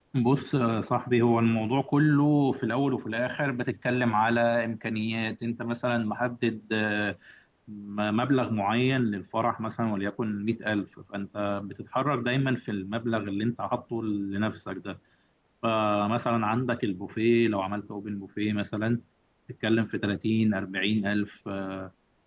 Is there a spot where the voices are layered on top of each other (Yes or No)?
No